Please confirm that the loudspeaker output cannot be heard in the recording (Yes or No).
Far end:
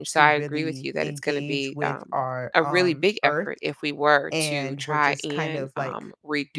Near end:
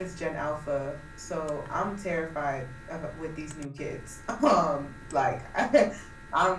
Yes